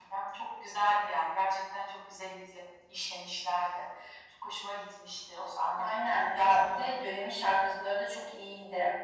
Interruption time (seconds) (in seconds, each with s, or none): 5.8 s